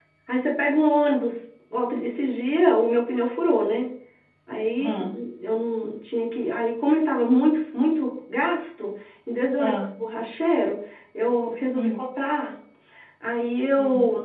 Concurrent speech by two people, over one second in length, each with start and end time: none

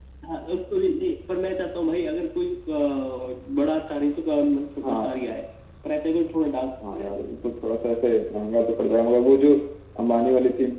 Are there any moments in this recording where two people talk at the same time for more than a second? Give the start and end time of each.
none

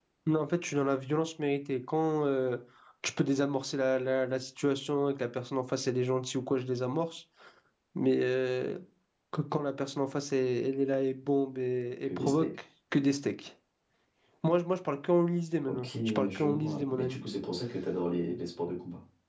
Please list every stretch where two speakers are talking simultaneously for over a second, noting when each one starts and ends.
15.7-17.2

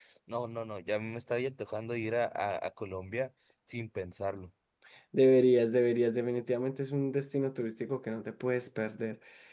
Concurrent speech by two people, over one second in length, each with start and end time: none

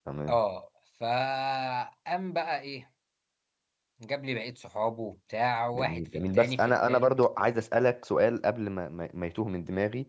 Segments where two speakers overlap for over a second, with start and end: 5.8-7.1

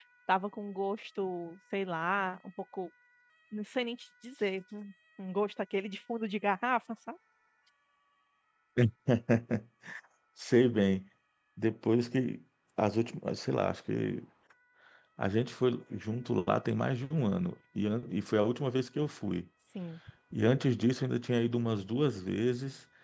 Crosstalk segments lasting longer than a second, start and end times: none

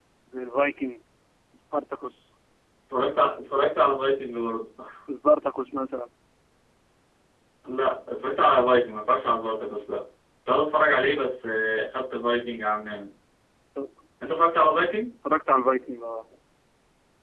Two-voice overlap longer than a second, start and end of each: none

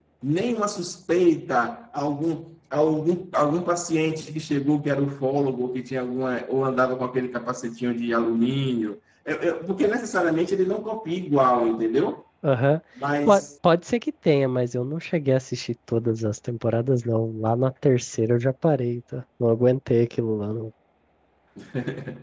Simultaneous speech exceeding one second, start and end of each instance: none

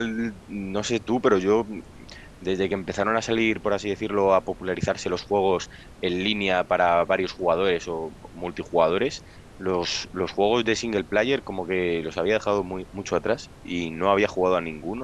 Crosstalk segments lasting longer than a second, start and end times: none

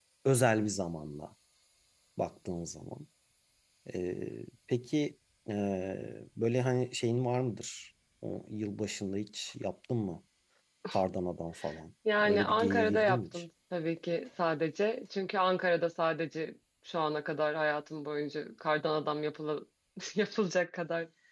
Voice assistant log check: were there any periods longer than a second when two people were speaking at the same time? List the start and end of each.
12.2-13.4

